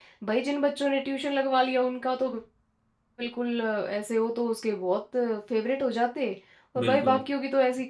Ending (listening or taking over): listening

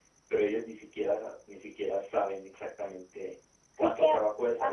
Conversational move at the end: taking over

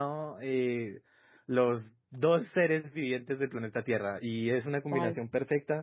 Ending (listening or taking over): listening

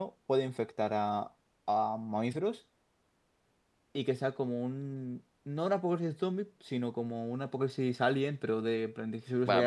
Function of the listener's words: taking over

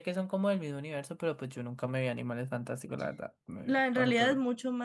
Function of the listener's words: taking over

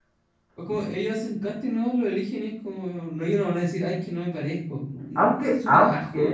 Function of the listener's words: taking over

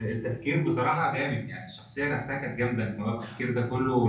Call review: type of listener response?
listening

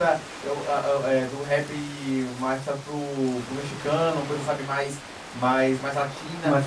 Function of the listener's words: listening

